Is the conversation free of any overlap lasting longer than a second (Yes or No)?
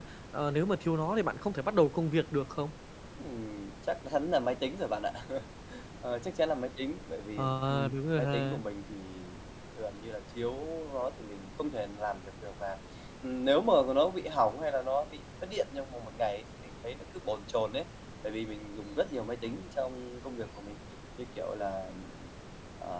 No